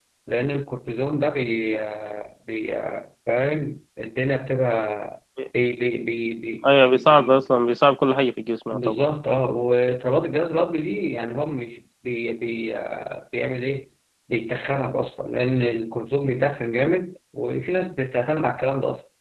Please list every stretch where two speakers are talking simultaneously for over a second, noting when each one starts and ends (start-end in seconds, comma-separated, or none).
none